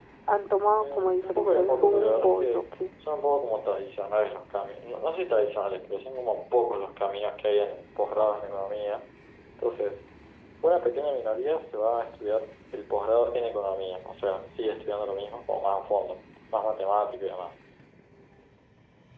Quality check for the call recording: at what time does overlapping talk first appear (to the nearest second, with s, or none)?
1 s